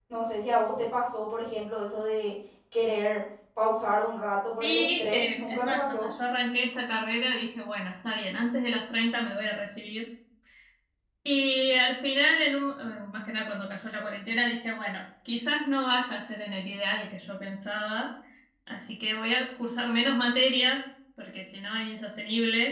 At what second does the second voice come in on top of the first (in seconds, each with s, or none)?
4.6 s